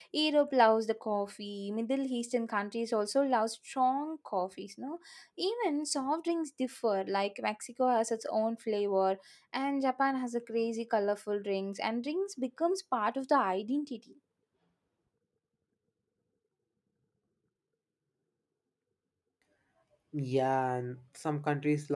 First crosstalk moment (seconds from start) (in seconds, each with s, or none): none